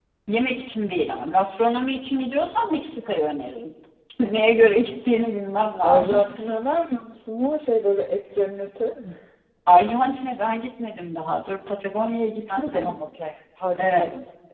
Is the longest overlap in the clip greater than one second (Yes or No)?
No